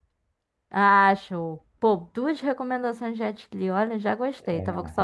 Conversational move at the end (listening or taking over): taking over